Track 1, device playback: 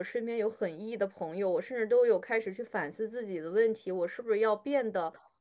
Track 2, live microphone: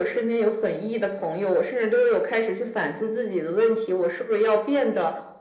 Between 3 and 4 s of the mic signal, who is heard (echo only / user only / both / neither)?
echo only